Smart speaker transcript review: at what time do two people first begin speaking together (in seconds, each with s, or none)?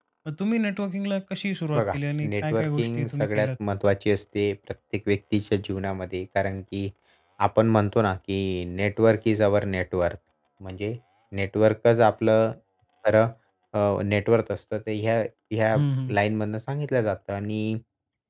1.7 s